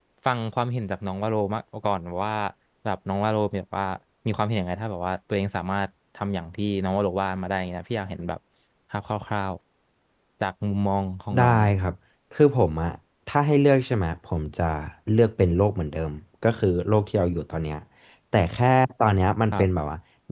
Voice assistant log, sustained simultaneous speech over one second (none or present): none